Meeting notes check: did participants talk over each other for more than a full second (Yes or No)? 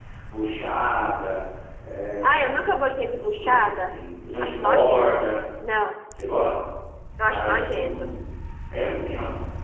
Yes